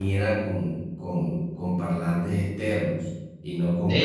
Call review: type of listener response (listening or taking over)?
taking over